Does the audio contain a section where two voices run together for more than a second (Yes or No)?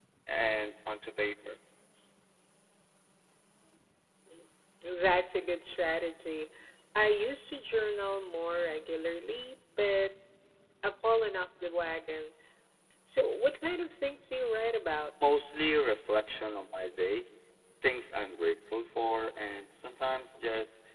No